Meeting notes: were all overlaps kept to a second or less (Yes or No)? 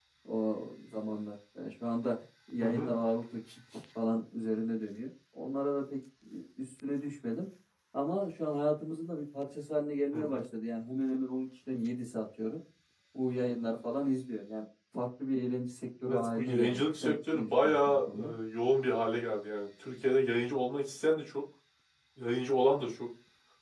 No